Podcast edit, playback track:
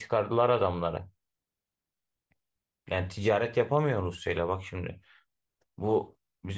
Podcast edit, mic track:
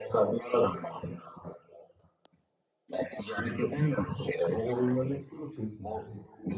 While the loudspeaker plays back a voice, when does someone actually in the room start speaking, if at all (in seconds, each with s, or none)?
4.5 s